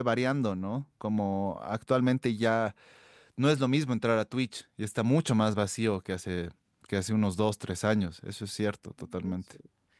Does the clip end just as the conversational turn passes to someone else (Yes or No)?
Yes